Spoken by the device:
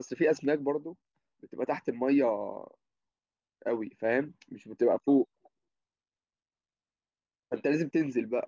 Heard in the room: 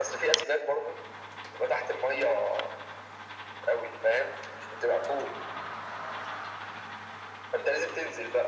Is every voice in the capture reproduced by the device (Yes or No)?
Yes